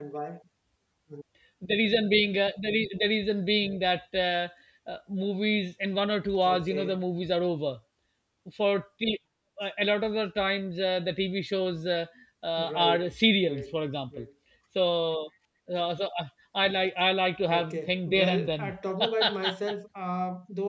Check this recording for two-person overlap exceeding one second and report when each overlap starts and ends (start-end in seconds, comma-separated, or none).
17.5-18.7